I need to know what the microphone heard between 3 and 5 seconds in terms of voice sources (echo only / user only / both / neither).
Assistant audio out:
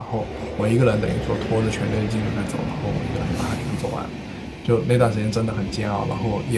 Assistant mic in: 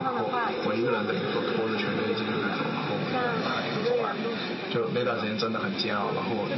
both